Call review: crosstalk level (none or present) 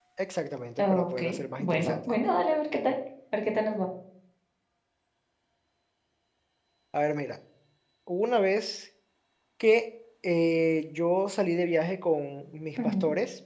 present